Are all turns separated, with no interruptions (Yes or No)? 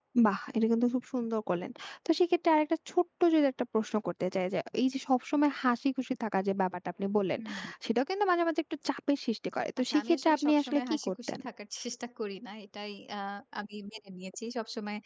No